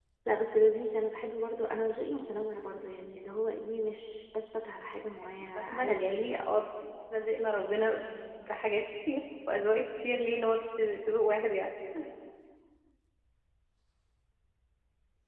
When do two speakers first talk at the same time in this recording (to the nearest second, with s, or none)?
5 s